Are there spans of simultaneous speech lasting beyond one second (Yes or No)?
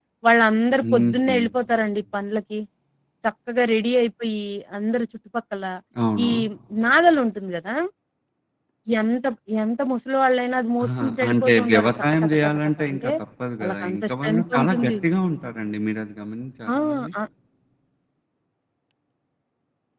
Yes